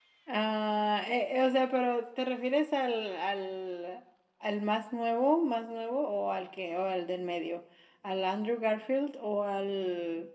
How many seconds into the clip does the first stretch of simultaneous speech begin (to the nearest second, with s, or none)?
none